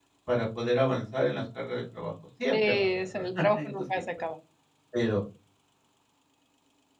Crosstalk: present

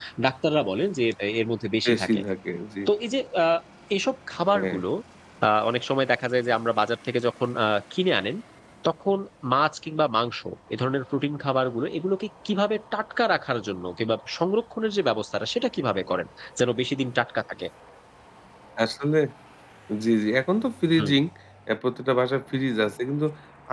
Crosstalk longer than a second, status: none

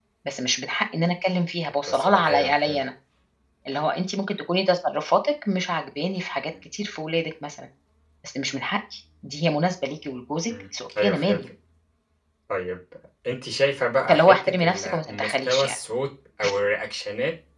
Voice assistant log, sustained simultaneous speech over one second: present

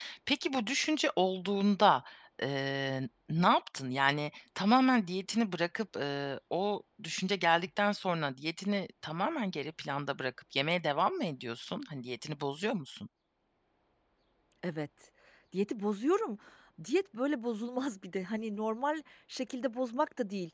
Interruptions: none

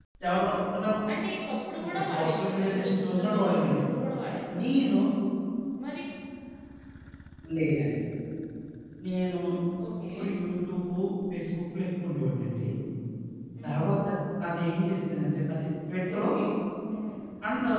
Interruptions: present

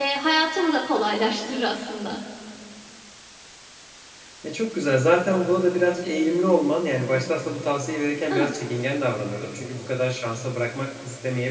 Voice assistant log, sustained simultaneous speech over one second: none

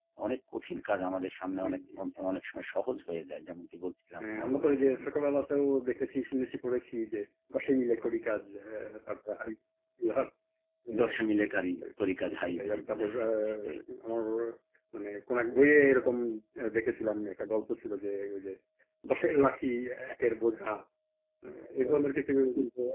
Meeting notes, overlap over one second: present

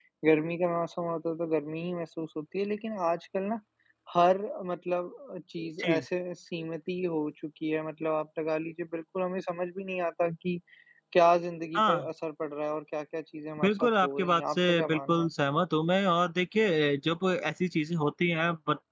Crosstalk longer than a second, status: present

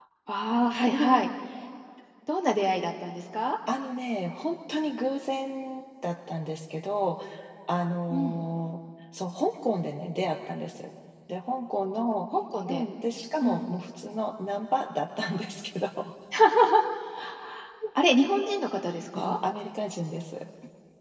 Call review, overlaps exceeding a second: none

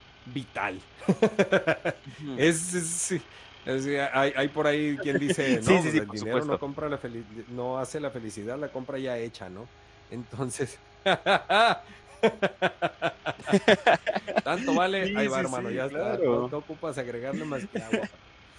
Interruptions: present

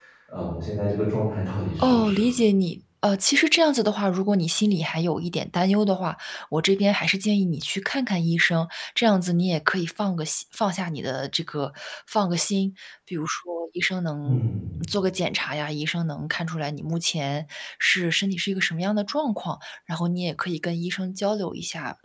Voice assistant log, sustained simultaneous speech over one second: none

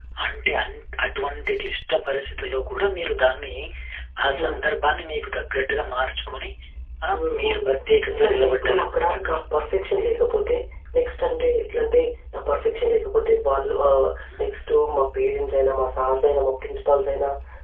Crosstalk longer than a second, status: present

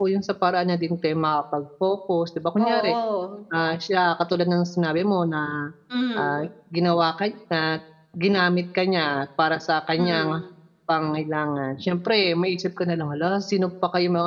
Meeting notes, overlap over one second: none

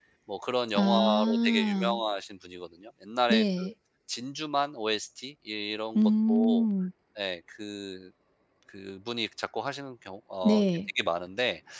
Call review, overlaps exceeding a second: present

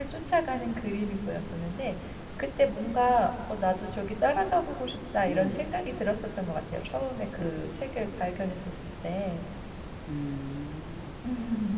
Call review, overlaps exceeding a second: none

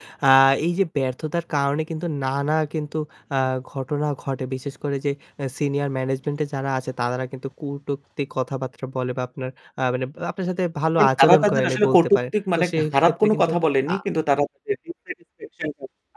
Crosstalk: present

